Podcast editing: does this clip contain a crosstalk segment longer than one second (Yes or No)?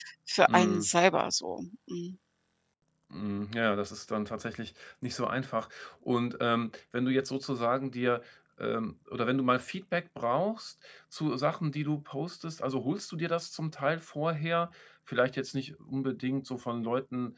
No